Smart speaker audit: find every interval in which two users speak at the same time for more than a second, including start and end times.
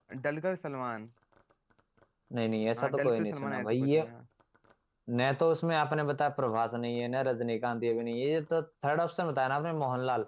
2.8-4.0

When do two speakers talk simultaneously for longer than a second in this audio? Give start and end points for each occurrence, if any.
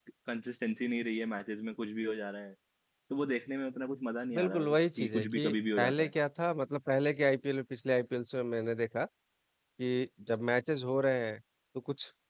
4.3-6.1

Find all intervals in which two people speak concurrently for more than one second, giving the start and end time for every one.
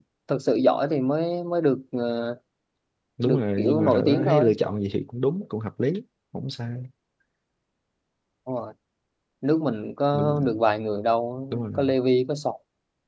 3.2-4.5

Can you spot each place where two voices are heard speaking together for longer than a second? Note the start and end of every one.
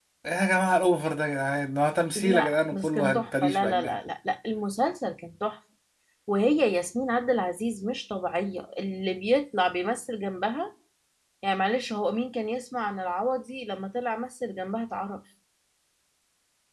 2.1-4.0

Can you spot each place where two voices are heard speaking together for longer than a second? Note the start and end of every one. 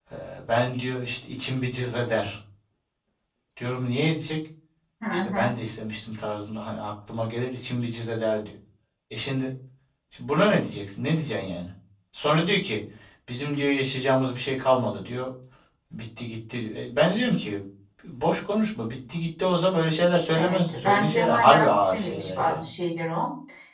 20.3-22.6

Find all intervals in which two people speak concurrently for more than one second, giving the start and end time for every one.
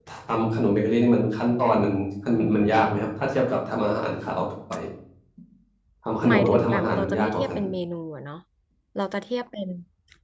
6.3-7.5

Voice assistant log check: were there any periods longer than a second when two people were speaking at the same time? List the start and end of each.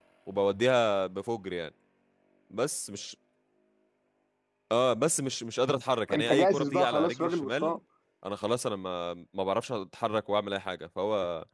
6.1-7.8

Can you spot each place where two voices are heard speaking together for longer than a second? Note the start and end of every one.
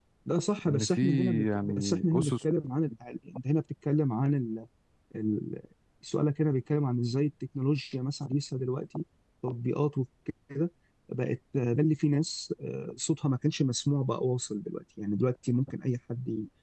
0.7-2.3

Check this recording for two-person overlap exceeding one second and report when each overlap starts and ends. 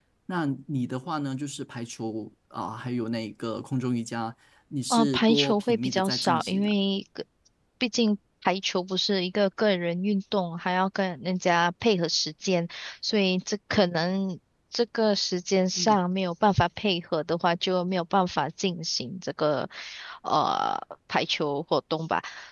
4.9-6.7

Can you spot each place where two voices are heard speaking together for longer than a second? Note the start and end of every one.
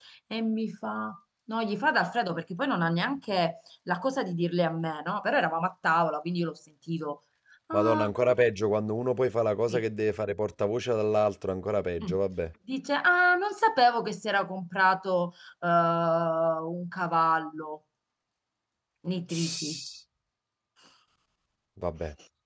none

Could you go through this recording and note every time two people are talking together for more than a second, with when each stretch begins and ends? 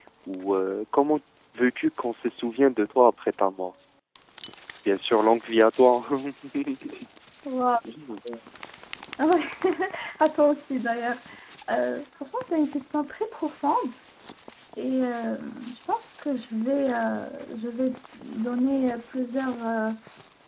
none

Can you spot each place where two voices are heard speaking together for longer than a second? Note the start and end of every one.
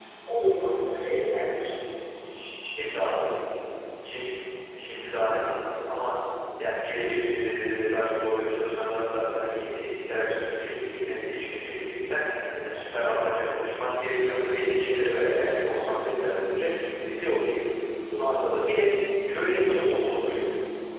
none

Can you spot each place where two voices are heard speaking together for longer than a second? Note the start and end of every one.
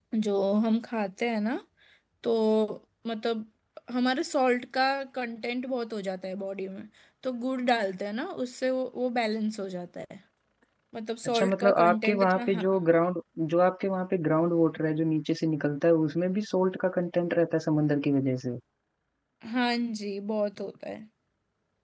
11.2-12.7

